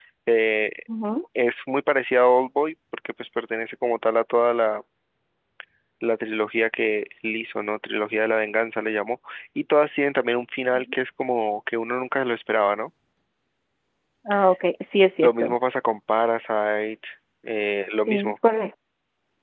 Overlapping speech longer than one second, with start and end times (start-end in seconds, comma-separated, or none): none